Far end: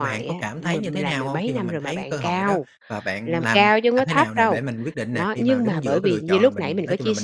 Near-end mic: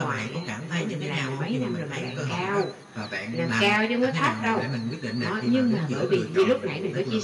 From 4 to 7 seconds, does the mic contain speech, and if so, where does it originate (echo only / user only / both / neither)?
echo only